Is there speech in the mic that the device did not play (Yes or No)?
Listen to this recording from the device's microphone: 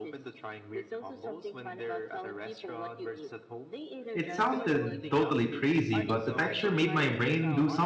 Yes